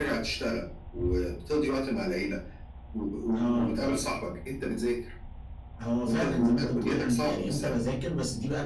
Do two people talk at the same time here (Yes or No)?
Yes